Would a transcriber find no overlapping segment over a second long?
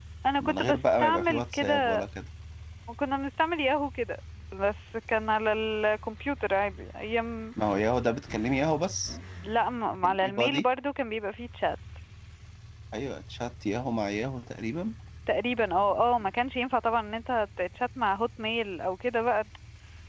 No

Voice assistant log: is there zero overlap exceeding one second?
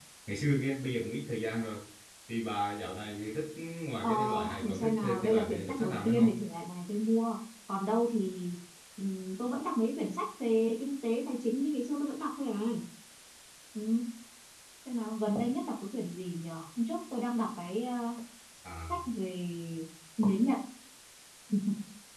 No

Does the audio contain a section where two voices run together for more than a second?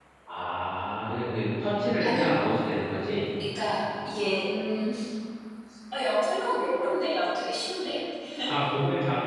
No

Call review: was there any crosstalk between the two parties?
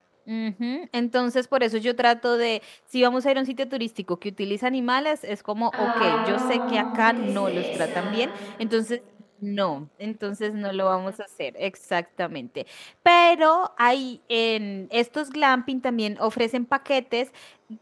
Yes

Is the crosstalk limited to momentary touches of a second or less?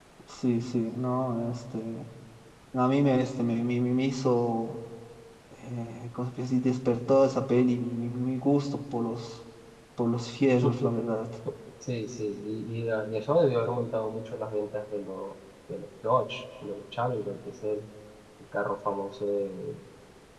Yes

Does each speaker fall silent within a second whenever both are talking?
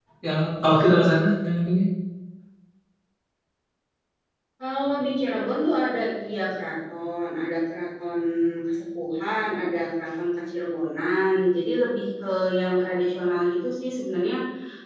Yes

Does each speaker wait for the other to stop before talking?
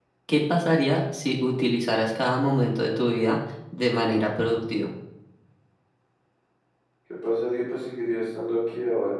Yes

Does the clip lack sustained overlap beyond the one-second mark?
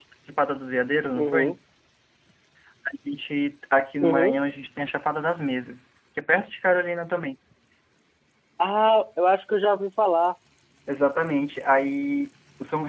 Yes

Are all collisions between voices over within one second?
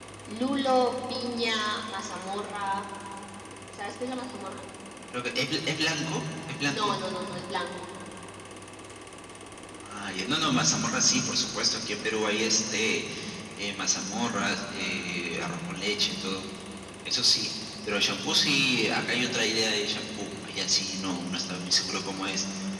Yes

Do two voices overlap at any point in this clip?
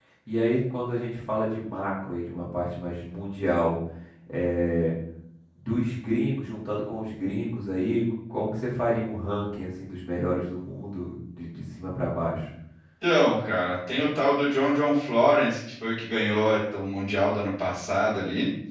No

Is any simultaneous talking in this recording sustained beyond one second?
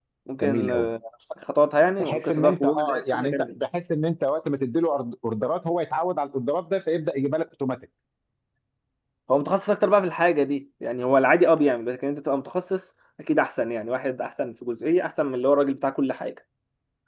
Yes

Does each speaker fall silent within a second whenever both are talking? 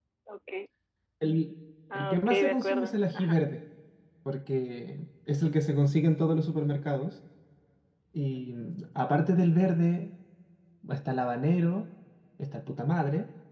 No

